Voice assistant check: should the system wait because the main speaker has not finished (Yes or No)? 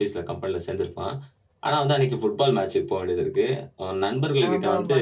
Yes